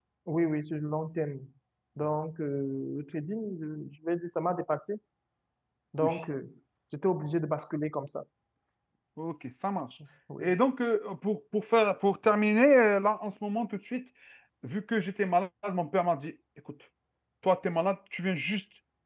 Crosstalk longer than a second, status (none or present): none